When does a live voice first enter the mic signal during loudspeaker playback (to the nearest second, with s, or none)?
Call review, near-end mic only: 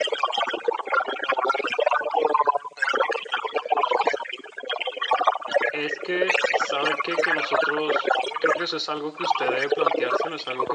6 s